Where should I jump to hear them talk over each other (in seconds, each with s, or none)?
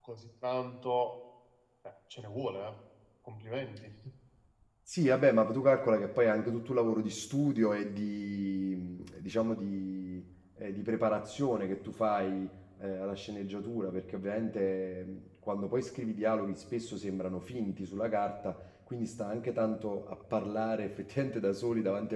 none